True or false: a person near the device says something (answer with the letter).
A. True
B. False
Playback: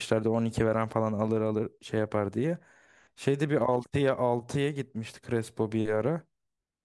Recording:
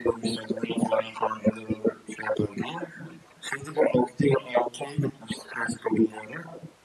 B